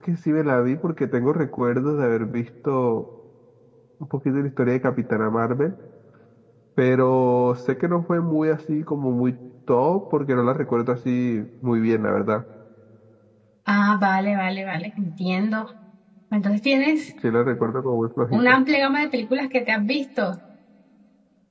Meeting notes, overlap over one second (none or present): none